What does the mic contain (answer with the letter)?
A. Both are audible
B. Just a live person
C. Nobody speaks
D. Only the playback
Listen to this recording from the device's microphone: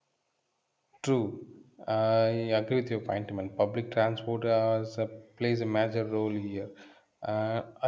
B